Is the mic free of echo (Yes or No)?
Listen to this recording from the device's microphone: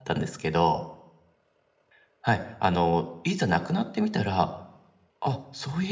Yes